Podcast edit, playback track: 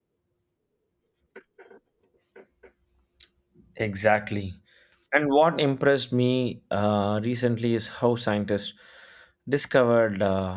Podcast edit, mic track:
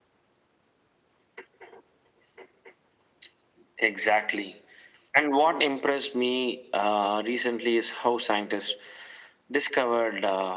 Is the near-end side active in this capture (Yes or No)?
No